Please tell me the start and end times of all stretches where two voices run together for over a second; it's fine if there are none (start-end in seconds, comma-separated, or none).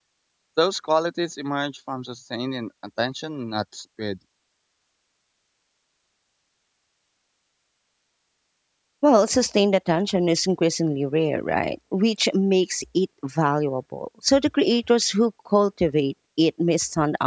none